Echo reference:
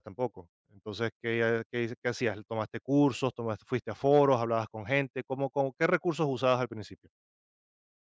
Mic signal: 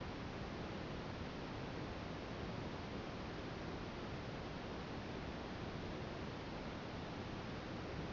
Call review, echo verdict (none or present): none